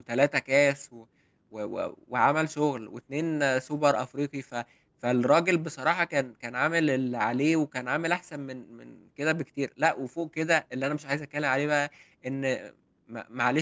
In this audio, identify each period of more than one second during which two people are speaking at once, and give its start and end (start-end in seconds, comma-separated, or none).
none